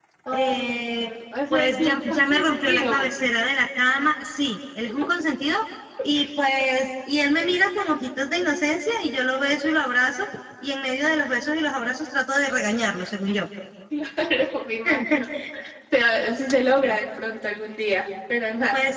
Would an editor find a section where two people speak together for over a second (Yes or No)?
Yes